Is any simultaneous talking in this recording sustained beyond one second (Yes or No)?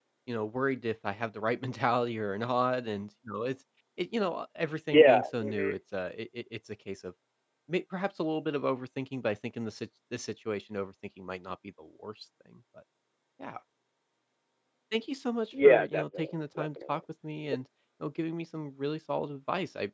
Yes